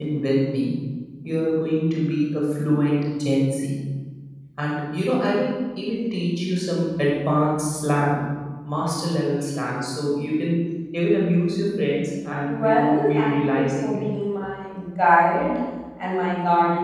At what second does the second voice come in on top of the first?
12.4 s

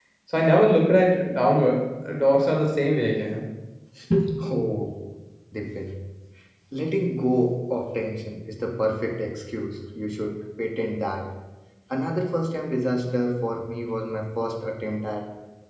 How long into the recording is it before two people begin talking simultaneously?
none

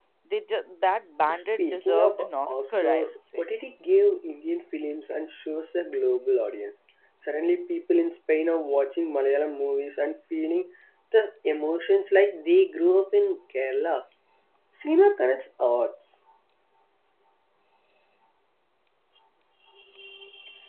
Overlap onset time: 1.3 s

